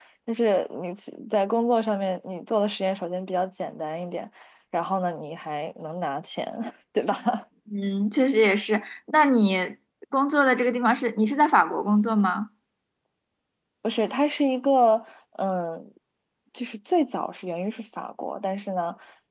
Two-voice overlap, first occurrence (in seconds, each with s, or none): none